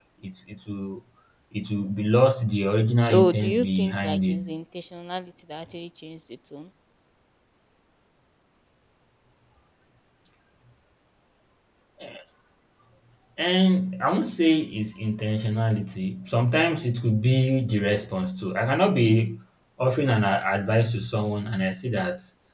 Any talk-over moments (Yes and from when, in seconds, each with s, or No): Yes, from 3.0 s